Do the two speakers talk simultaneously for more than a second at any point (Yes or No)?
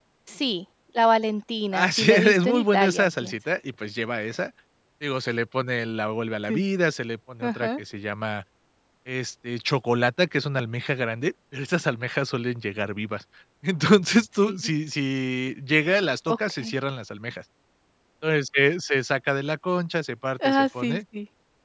Yes